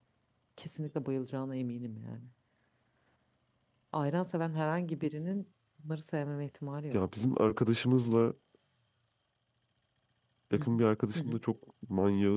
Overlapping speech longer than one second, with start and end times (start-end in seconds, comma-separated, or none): none